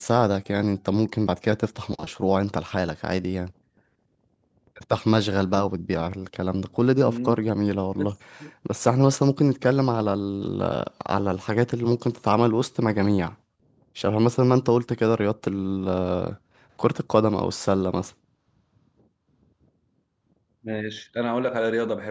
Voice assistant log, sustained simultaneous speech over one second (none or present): none